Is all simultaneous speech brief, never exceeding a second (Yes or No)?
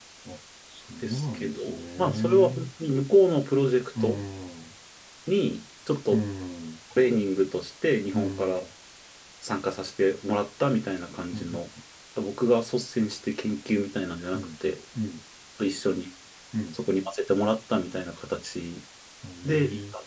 No